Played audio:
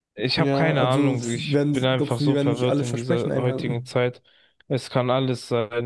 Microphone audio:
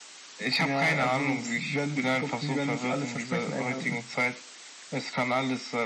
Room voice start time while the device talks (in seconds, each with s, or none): none